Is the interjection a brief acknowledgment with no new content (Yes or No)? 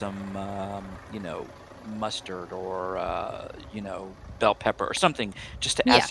Yes